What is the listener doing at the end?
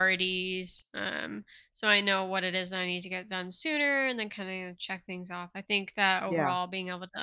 listening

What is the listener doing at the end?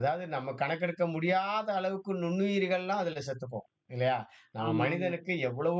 listening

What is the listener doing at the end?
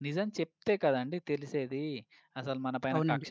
listening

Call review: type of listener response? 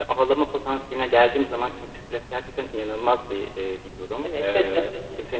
listening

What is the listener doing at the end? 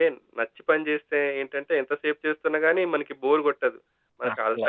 listening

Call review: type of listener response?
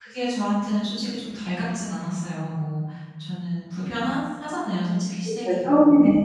taking over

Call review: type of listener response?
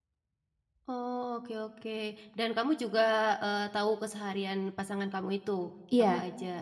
taking over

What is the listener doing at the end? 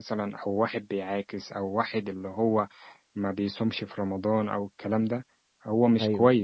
listening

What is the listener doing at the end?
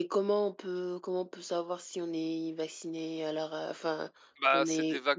taking over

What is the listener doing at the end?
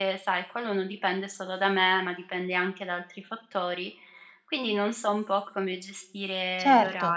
taking over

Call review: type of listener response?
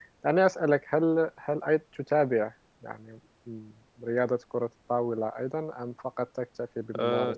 taking over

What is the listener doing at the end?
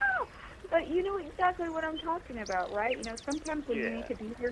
listening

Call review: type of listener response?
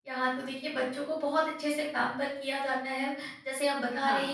listening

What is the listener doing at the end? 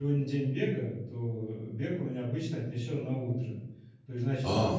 taking over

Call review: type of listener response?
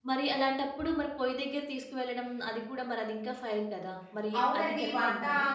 taking over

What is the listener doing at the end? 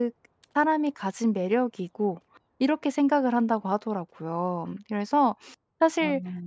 listening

